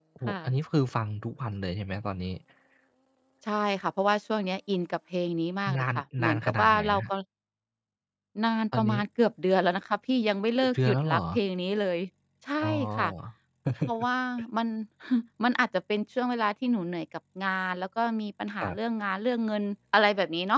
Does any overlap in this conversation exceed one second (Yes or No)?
Yes